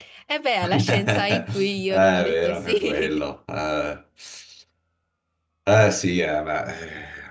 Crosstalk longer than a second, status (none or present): present